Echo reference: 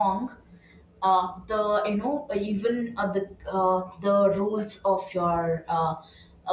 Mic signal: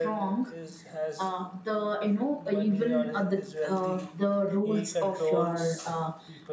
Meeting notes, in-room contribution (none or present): present